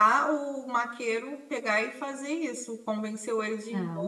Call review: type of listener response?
taking over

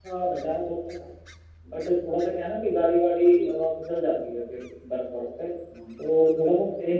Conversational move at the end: listening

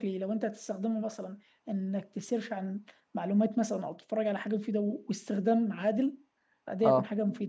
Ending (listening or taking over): listening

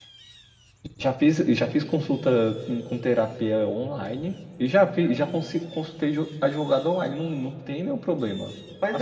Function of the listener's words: taking over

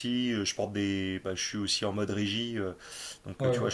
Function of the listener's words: listening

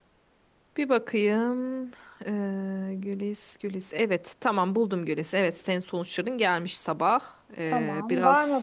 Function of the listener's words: taking over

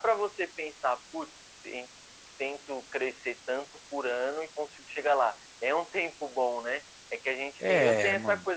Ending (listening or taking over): listening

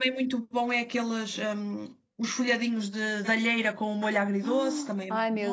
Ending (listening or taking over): taking over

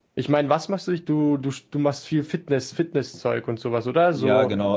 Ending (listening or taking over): taking over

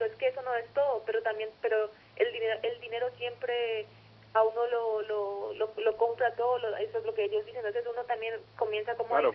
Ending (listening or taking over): taking over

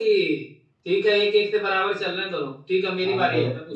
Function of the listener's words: taking over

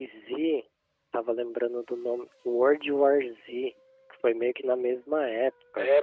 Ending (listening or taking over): taking over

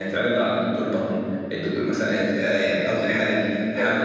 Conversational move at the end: listening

